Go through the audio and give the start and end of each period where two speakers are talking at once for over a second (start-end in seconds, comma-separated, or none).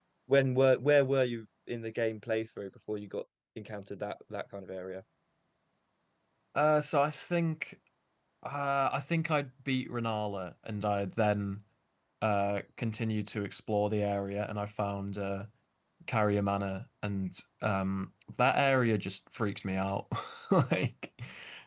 none